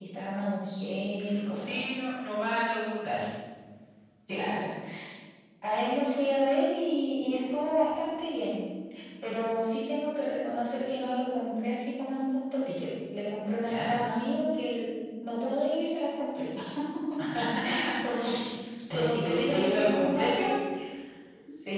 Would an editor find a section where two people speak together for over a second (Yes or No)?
Yes